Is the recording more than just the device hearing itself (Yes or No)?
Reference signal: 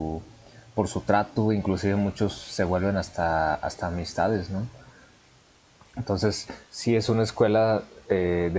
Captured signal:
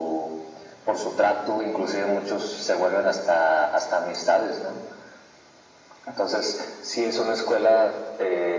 No